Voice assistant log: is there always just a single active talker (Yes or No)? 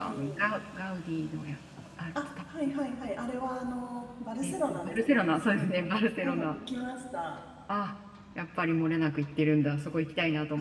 No